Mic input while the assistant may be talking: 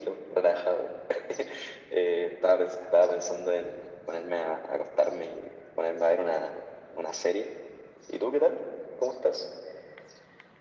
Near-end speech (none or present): none